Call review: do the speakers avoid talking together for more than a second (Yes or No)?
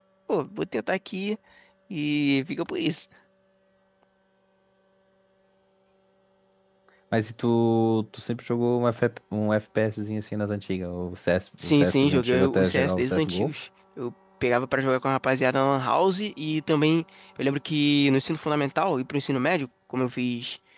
No